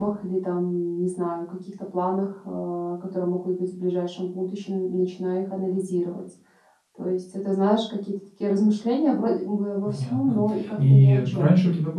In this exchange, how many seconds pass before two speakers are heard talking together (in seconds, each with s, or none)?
9.8 s